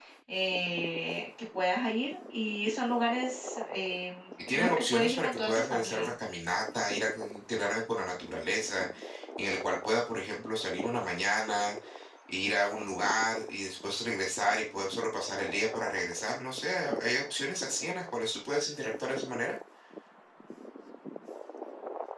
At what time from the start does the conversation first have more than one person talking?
4.4 s

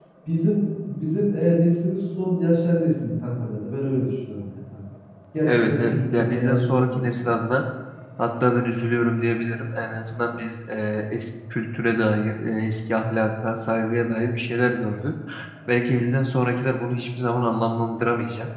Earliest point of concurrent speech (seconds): 5.5 s

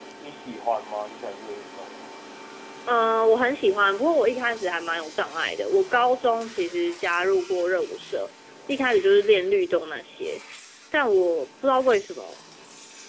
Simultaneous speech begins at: none

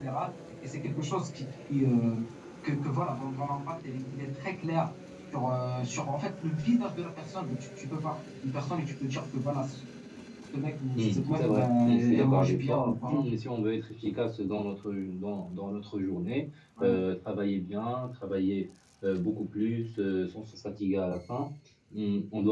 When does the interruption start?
10.9 s

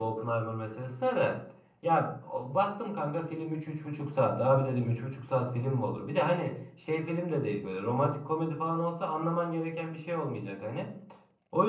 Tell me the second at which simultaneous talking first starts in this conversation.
none

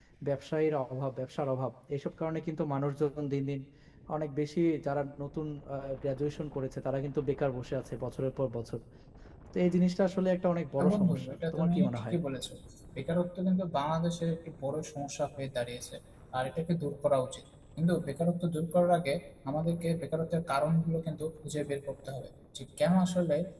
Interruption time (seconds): 10.8 s

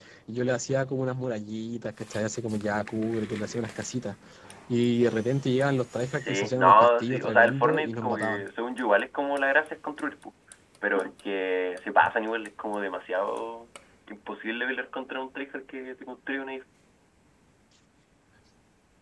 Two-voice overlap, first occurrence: 6.2 s

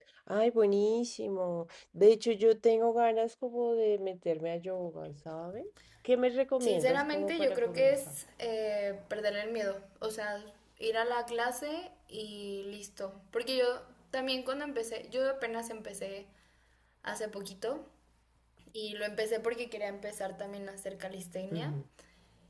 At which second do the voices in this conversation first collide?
6.6 s

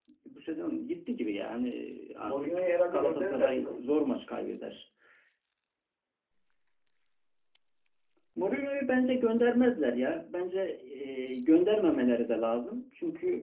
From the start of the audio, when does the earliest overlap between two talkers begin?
2.2 s

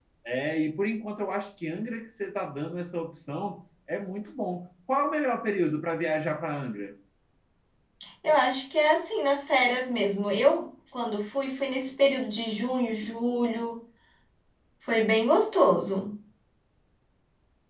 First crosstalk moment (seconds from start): none

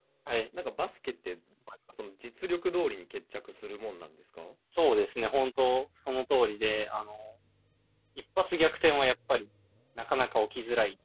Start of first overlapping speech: none

